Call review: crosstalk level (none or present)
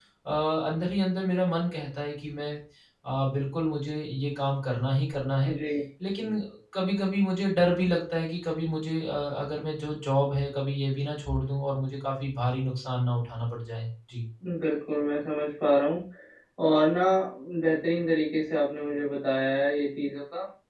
none